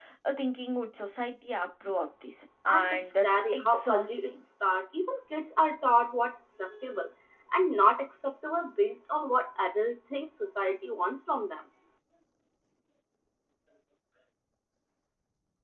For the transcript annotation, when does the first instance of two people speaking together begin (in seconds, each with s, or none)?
2.7 s